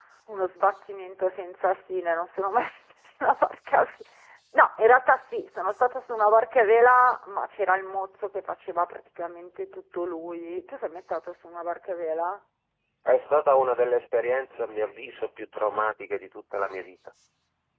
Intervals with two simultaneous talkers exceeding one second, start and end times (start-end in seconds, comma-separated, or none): none